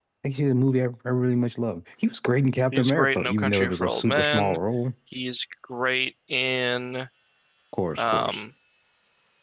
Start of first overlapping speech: 3 s

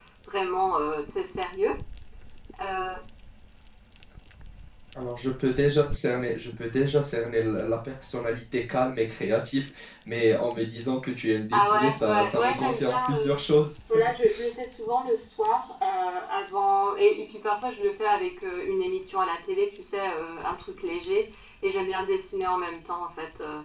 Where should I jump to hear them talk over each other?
12 s

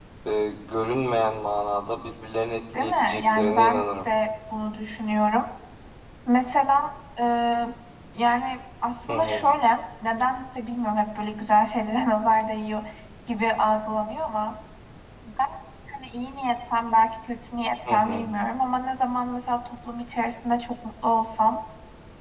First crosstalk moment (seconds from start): 3 s

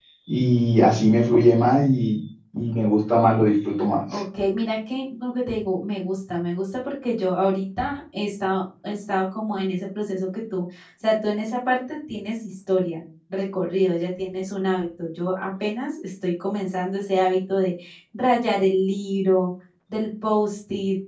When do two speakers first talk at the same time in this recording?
none

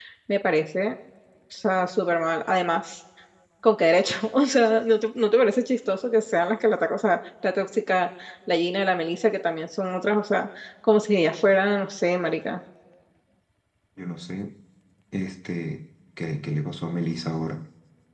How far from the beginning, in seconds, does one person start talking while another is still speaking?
none

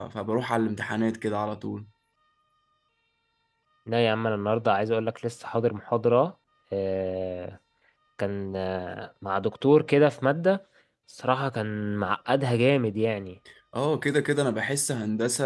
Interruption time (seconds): none

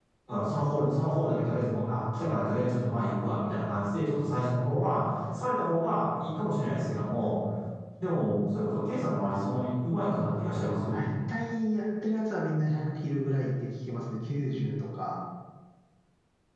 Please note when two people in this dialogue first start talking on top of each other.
none

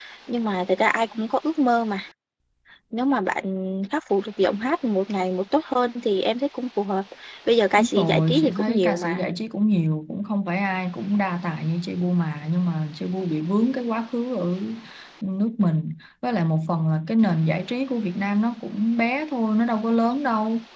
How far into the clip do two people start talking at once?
8 s

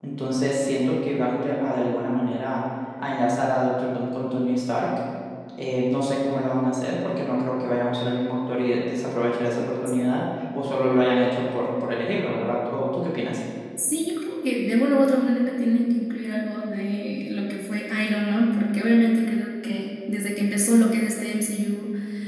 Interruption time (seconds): none

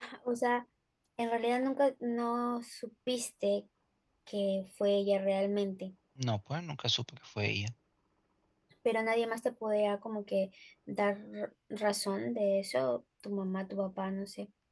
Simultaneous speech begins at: none

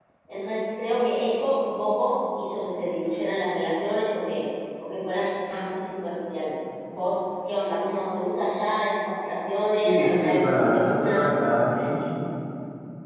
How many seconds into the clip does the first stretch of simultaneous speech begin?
10 s

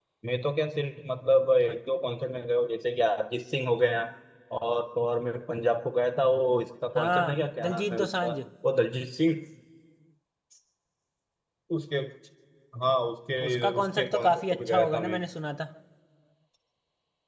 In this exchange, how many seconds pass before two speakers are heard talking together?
7 s

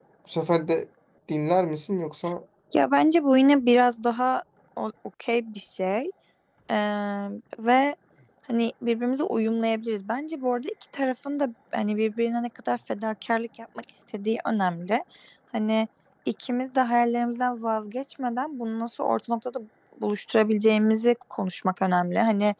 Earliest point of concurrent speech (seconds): none

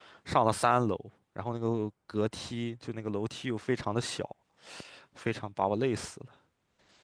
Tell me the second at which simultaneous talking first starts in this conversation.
none

